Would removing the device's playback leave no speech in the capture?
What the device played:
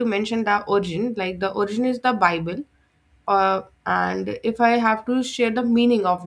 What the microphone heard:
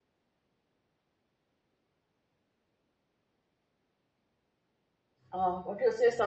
No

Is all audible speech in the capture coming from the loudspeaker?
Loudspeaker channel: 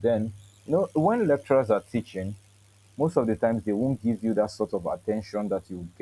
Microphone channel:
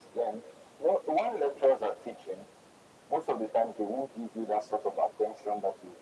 Yes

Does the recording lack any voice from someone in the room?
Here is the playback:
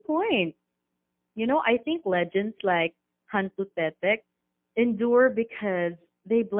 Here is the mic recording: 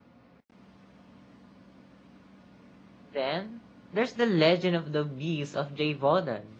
No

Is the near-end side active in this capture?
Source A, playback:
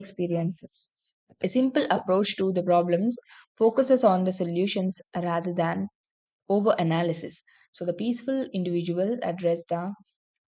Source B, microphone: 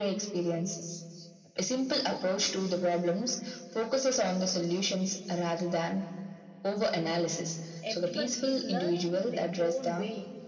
Yes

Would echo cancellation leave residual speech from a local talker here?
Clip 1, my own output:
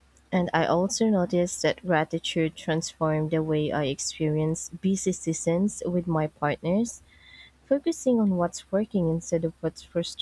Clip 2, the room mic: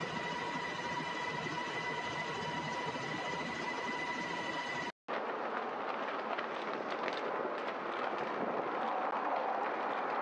No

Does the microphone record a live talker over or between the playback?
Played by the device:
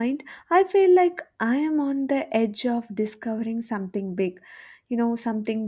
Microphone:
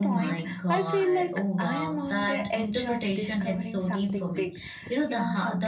Yes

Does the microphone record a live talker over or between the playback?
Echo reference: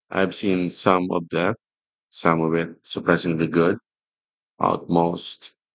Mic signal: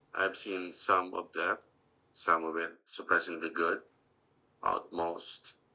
No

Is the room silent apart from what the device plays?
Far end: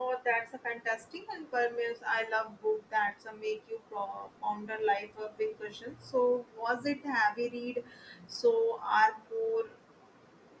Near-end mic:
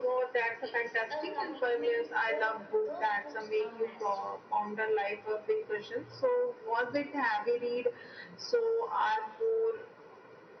No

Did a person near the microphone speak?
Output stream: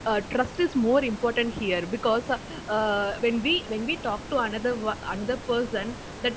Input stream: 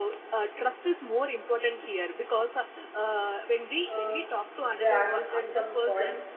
Yes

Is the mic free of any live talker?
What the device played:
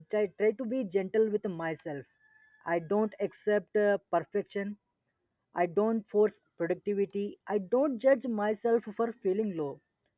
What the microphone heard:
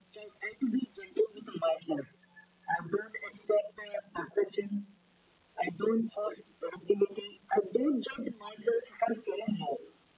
Yes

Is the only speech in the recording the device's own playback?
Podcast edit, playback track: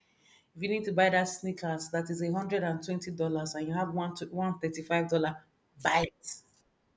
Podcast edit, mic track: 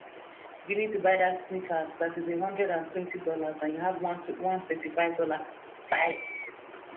Yes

